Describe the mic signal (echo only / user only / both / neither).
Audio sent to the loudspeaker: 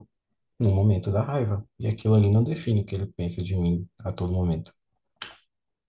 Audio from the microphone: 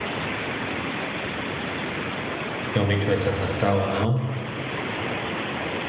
user only